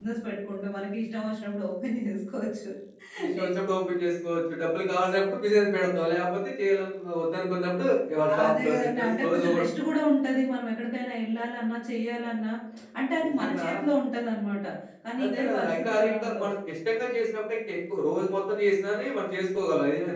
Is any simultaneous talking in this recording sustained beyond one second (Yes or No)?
Yes